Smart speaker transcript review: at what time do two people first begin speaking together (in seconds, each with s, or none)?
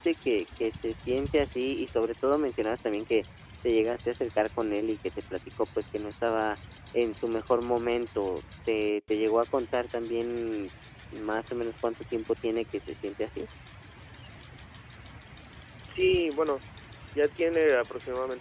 none